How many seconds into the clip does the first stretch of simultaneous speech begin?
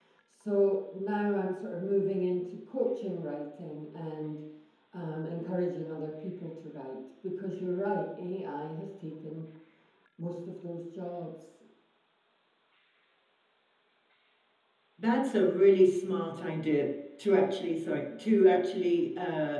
none

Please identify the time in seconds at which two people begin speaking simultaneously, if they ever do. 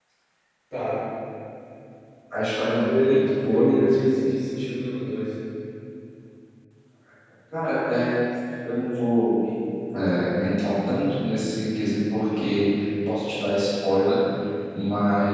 2.7 s

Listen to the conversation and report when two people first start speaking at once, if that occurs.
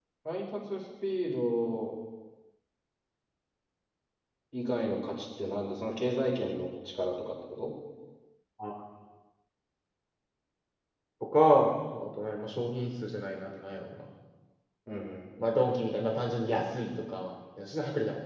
none

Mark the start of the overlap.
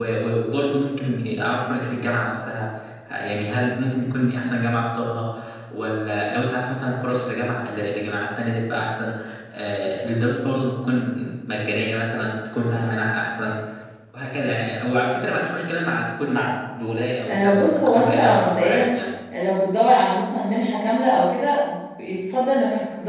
17.2 s

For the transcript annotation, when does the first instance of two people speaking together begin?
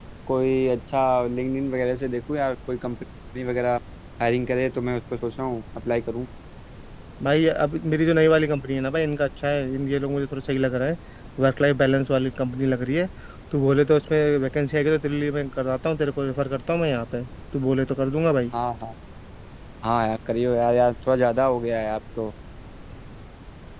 none

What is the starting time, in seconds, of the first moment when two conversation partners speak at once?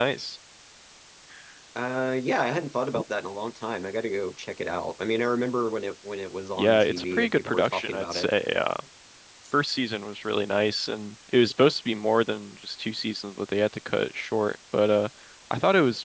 6.6 s

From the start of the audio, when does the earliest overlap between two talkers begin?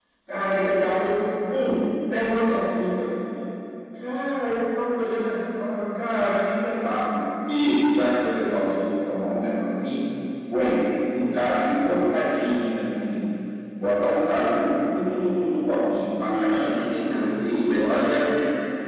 16.3 s

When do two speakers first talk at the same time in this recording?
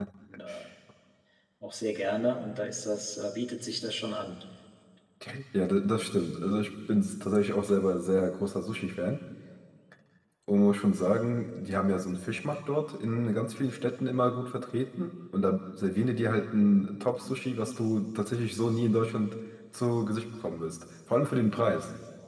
none

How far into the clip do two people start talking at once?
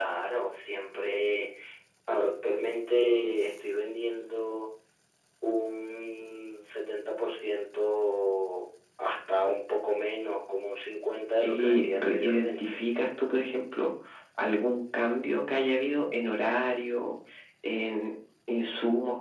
11.4 s

